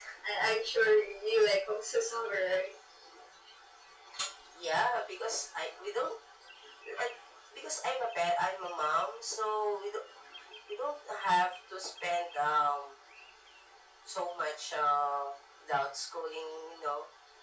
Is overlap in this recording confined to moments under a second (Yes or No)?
Yes